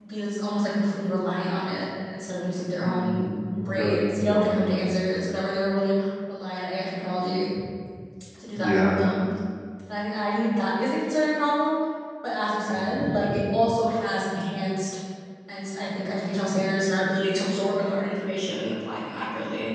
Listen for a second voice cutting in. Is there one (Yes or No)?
Yes